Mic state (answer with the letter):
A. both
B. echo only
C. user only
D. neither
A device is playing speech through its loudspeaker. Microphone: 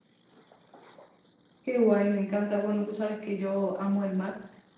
C